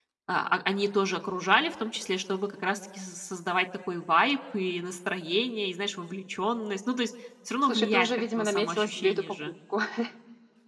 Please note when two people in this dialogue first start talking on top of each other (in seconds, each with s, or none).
7.6 s